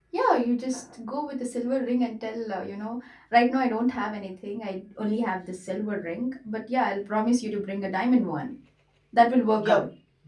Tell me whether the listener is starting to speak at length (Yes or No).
Yes